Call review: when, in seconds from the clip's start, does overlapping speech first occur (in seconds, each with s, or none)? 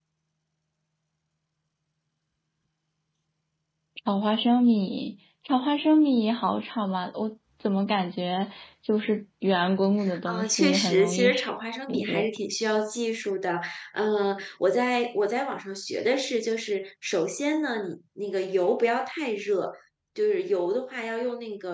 10.3 s